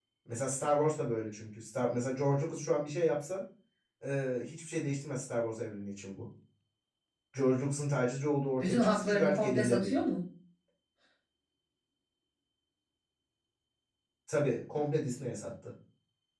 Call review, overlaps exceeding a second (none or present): present